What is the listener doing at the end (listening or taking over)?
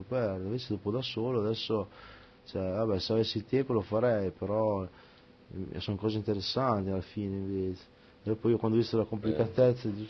listening